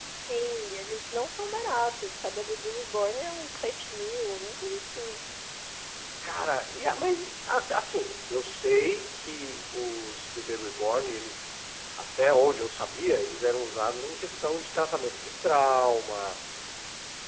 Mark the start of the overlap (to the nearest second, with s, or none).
none